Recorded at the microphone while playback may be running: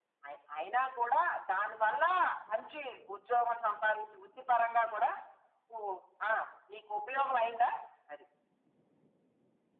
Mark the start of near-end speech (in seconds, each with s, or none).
none